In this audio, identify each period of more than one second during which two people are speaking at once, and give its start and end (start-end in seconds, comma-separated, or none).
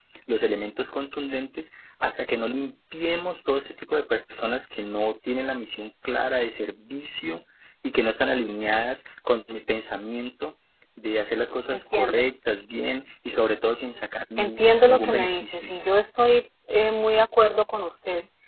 14.4-15.7